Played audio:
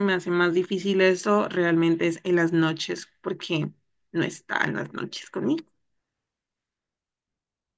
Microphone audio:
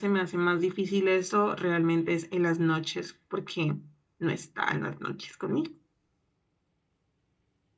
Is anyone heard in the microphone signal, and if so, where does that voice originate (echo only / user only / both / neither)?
echo only